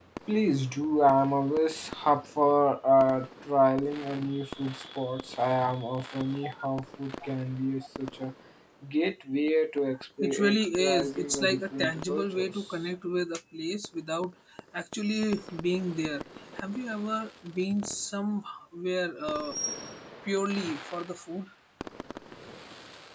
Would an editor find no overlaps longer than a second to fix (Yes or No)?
No